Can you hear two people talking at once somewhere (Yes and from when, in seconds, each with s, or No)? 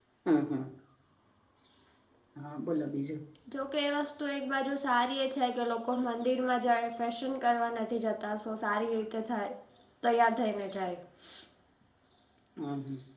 No